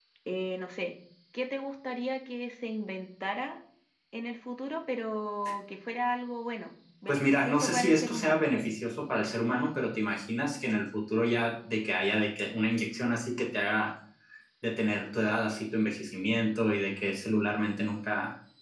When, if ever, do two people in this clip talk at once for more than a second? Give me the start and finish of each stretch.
7.1-8.5

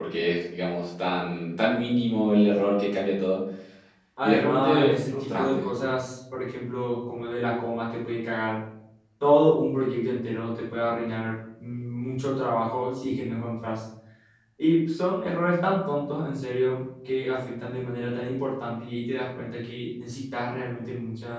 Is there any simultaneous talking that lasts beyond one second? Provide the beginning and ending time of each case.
4.2-5.7

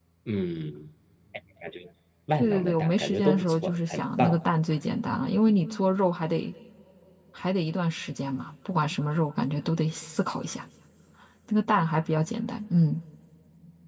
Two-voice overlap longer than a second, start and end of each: 2.3-4.4

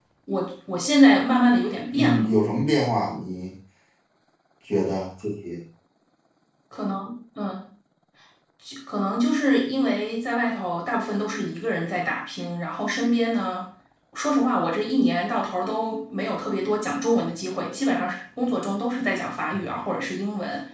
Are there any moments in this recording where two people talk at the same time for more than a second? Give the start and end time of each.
none

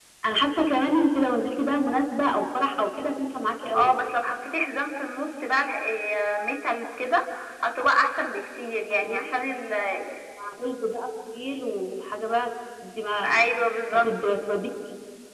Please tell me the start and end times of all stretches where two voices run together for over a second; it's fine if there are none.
none

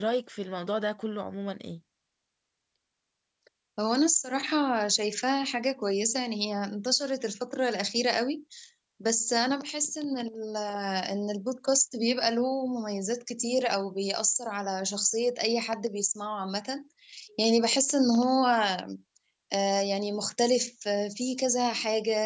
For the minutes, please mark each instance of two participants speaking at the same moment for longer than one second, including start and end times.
none

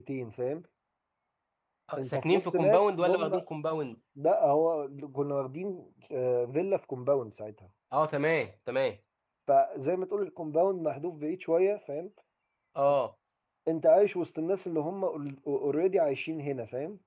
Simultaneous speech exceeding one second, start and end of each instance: 2.0-3.4

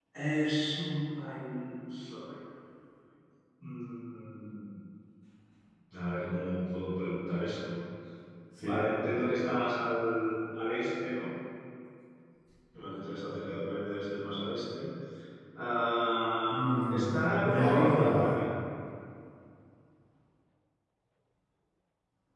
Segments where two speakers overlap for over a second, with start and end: 16.5-18.3

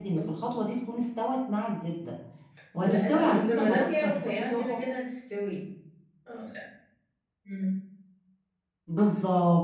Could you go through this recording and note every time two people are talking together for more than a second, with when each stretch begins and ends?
2.8-5.0

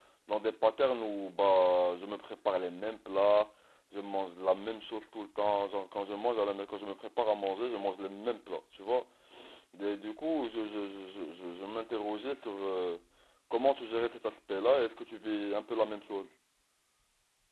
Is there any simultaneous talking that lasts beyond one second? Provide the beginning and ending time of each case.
none

